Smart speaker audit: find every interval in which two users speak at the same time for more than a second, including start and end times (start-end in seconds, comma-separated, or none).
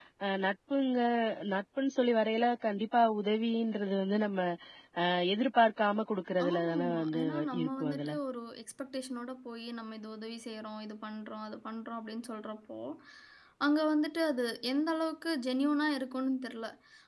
6.4-8.2